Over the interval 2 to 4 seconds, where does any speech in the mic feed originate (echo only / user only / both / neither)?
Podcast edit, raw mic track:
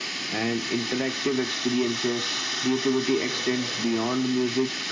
both